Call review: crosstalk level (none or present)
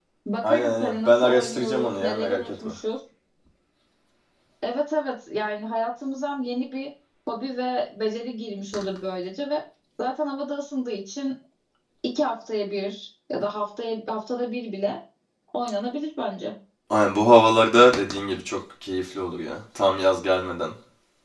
present